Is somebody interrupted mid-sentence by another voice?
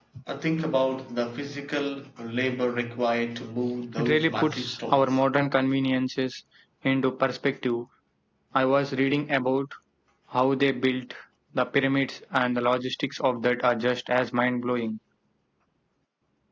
Yes, from 4.0 s

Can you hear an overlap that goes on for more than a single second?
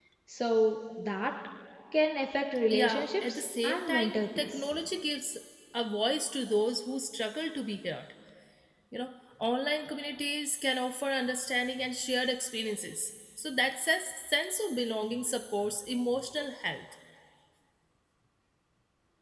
Yes, from 2.7 s

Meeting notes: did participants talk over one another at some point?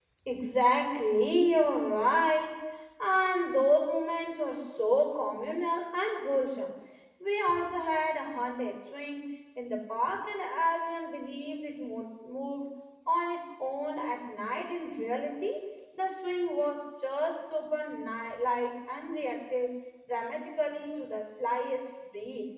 No

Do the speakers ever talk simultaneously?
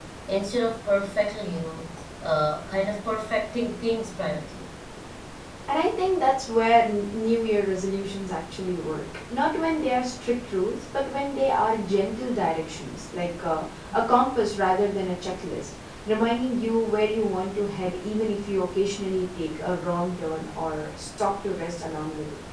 No

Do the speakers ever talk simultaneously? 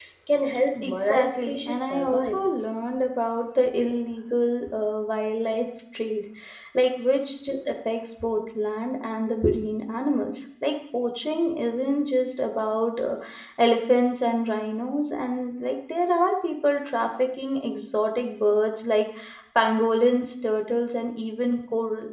Yes, from 0.8 s

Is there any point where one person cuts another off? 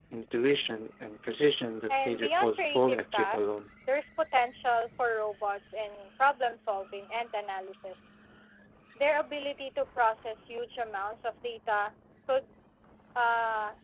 Yes, from 1.9 s

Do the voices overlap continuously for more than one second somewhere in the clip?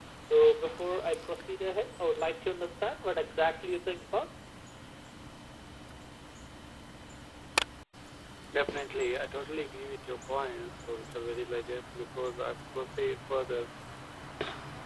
No

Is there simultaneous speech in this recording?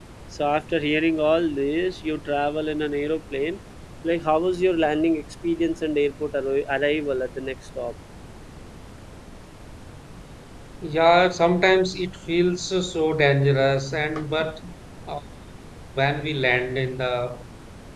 No

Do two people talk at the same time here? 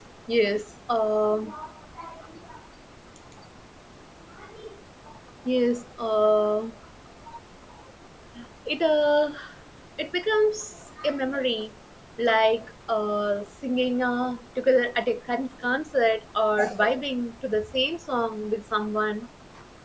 No

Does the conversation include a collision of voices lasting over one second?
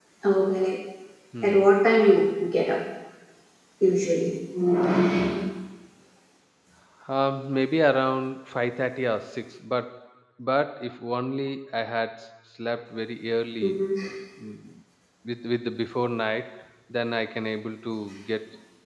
No

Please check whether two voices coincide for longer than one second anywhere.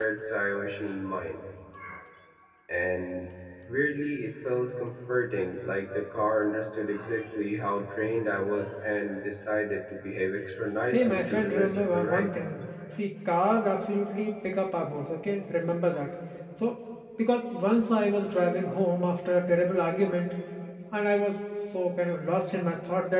Yes, from 10.9 s

